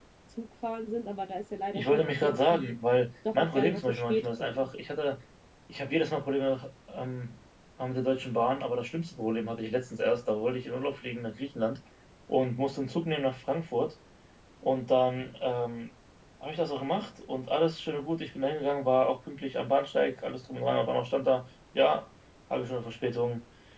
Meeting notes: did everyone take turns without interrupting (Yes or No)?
No